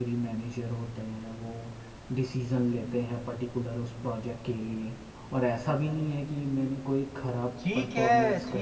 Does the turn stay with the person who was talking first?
No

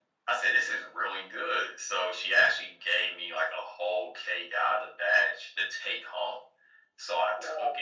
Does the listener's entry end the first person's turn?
No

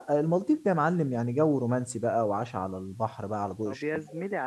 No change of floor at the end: No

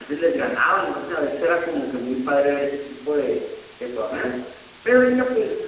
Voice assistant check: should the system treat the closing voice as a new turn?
No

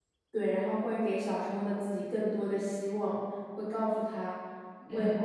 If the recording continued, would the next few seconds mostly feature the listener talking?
No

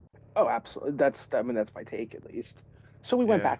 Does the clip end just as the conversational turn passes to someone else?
No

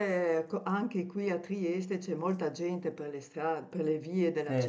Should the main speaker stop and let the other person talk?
No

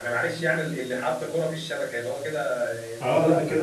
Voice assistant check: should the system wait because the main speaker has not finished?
No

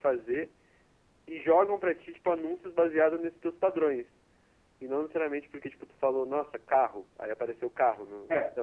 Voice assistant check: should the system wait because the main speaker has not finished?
No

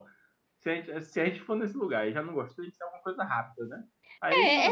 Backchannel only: No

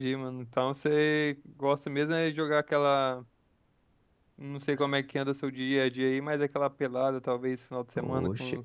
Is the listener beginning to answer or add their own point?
Yes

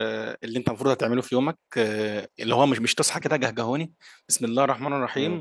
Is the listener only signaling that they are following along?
Yes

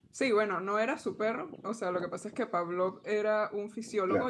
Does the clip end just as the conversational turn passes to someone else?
No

